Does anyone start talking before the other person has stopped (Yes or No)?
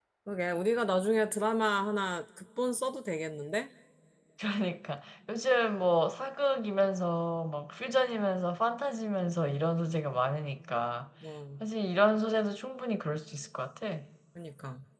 No